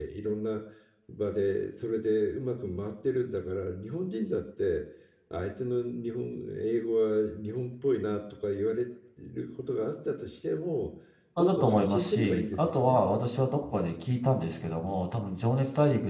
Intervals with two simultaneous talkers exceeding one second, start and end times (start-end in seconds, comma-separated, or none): 11.4-13.0